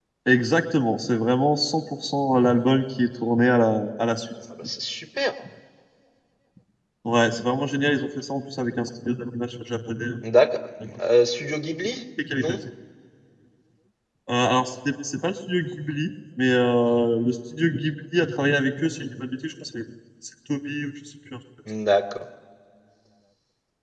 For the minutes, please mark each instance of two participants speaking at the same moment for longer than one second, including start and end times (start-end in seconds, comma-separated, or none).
none